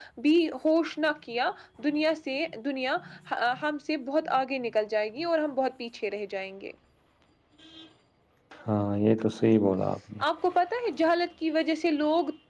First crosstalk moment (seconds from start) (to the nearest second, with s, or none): none